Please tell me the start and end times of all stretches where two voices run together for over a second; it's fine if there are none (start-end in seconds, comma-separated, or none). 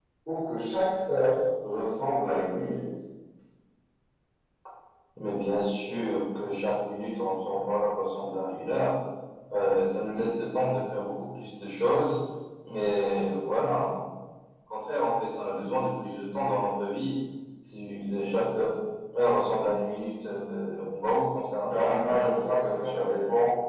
21.6-23.1